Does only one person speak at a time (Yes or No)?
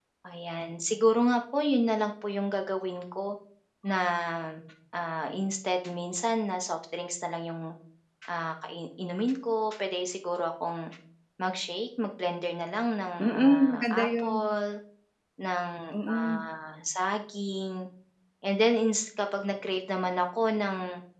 No